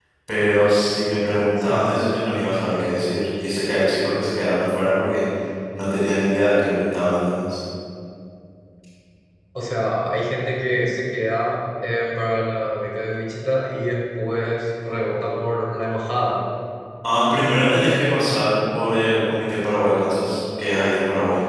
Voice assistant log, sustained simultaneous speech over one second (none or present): none